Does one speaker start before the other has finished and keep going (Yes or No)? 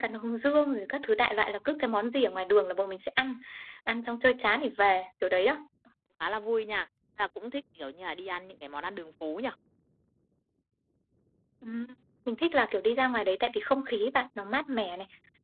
No